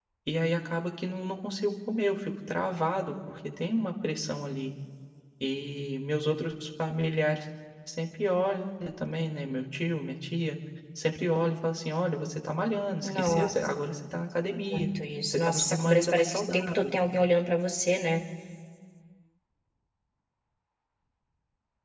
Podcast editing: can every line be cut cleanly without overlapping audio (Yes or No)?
No